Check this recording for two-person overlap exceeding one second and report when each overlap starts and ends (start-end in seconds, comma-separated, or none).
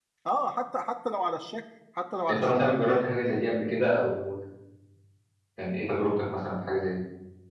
none